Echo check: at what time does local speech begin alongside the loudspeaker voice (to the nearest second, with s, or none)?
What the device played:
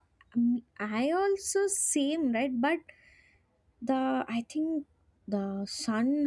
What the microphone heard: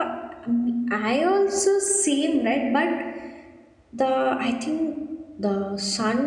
none